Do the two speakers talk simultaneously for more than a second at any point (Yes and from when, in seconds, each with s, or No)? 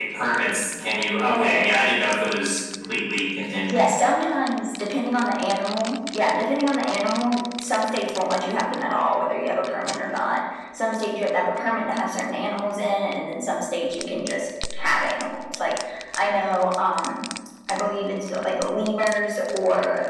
No